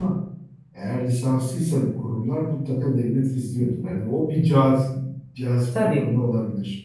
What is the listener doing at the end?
listening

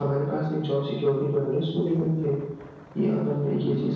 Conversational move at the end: taking over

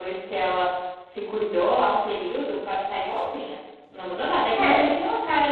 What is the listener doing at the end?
listening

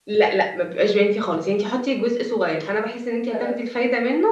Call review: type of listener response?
listening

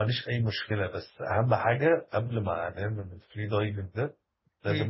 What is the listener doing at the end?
listening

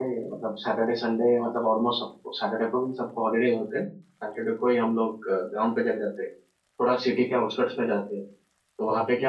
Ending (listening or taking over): listening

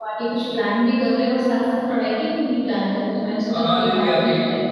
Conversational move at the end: taking over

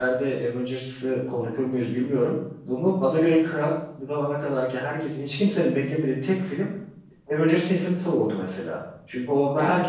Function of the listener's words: listening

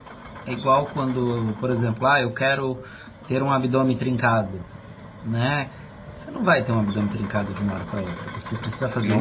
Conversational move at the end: listening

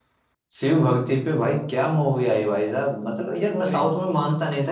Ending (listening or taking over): listening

